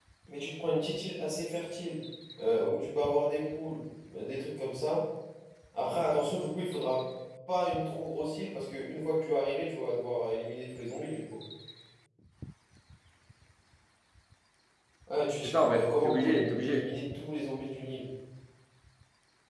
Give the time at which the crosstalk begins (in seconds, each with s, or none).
15.4 s